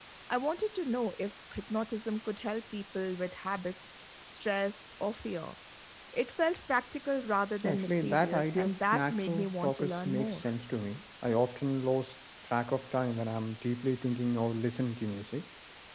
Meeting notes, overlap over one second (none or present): present